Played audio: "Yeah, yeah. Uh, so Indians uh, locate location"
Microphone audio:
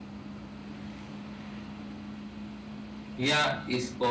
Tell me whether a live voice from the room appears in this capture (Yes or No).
Yes